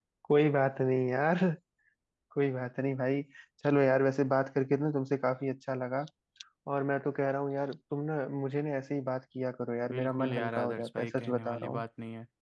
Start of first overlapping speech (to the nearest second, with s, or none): 10 s